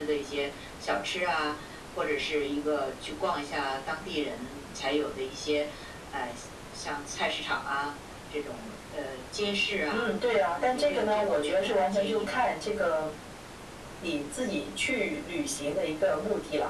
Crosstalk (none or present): present